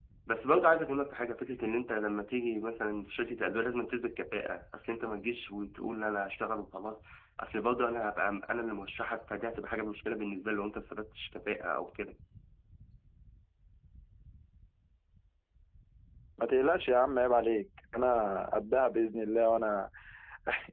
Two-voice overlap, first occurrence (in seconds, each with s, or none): none